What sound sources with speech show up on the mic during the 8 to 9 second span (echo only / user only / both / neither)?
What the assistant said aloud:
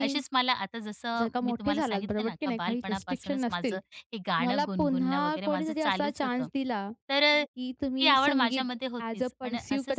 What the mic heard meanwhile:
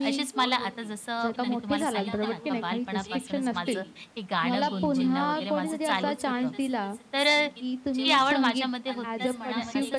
both